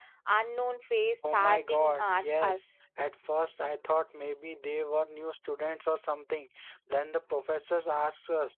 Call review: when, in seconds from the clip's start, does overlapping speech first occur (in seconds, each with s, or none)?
1.2 s